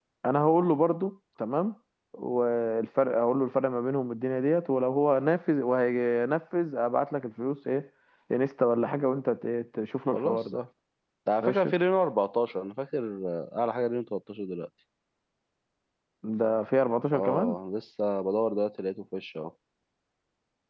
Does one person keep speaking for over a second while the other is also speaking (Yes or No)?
No